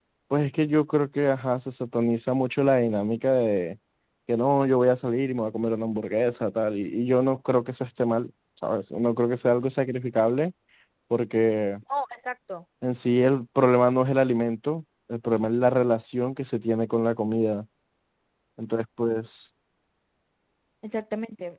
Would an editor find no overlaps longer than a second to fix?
Yes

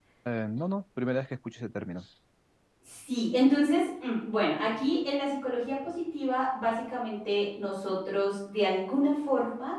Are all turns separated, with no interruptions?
Yes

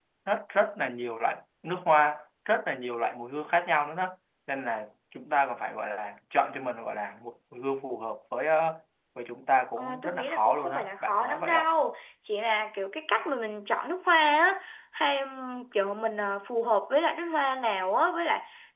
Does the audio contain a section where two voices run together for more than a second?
Yes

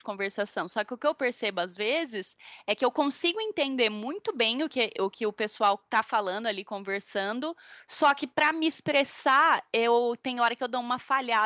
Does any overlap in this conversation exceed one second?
No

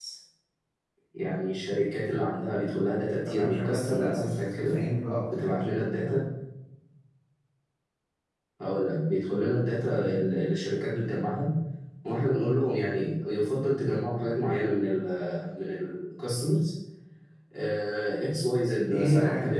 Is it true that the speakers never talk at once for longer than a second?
No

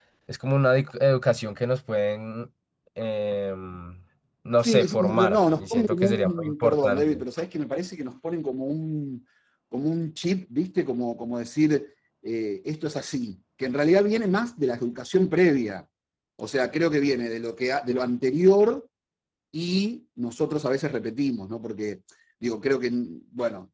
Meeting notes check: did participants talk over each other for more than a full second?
Yes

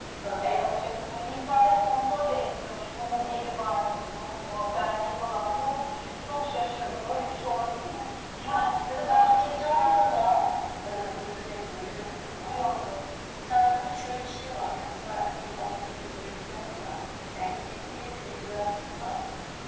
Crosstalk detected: Yes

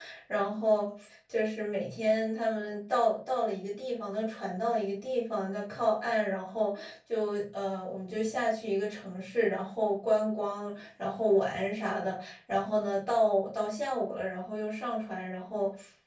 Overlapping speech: No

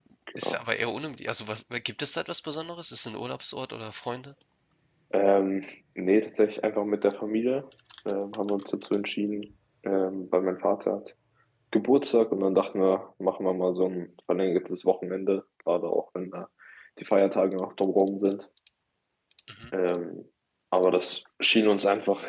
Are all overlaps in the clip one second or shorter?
Yes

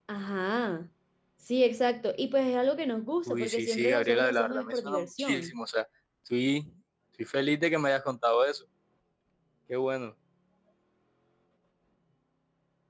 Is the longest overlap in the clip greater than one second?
Yes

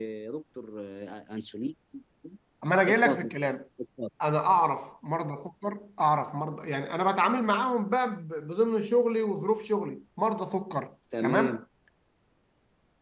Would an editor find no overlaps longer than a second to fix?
Yes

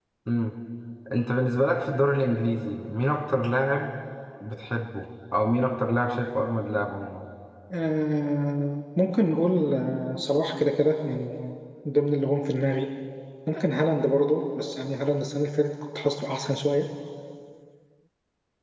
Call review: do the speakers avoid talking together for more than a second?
Yes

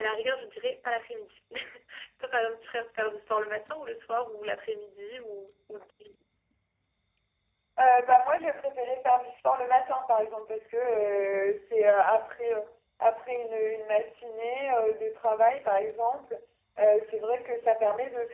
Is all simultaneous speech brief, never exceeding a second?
Yes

